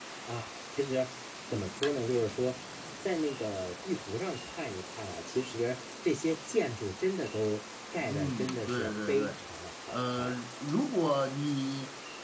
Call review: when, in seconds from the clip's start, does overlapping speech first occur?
8.0 s

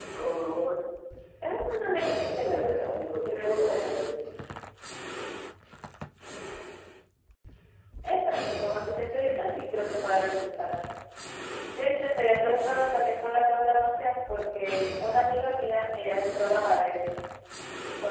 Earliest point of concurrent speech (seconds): 1.9 s

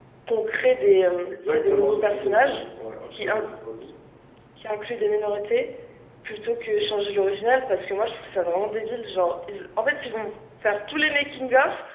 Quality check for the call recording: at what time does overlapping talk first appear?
1.3 s

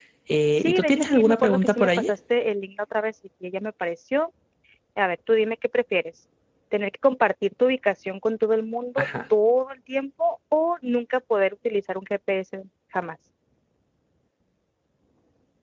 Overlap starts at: 0.6 s

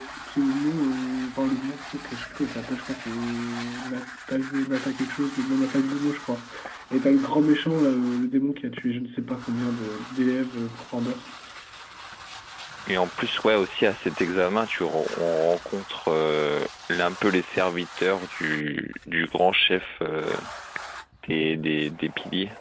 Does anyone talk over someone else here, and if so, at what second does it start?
none

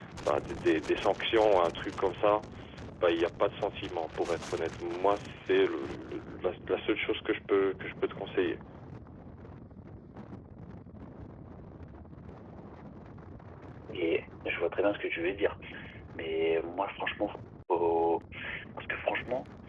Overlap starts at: none

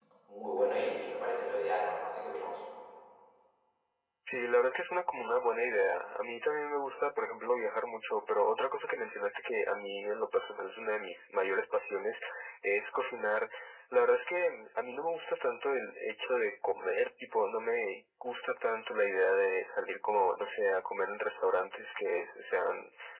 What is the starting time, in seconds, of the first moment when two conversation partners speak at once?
none

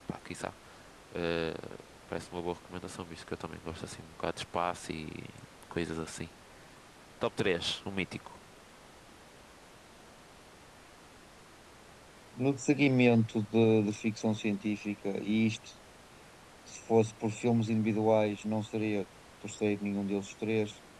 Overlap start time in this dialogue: none

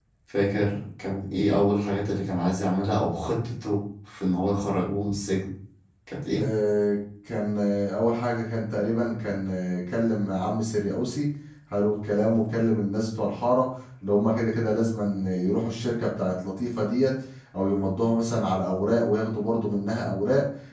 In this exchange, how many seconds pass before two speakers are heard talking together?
none

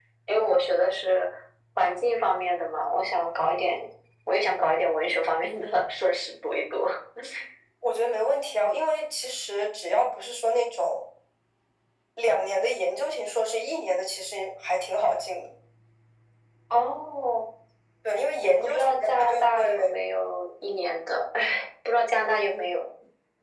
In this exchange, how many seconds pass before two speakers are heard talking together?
18.4 s

